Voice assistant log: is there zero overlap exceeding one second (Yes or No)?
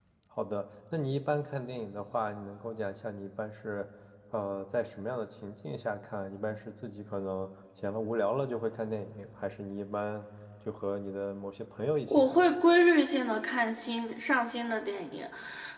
Yes